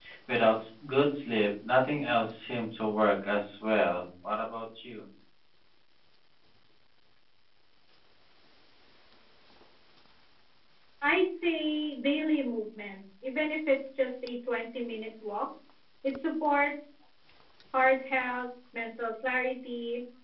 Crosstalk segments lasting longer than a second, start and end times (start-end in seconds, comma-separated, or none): none